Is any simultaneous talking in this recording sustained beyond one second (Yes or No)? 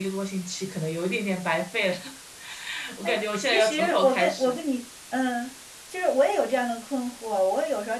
Yes